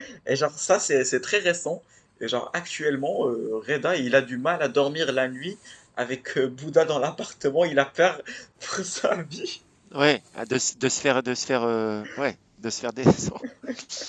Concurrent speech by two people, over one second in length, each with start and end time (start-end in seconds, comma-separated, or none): none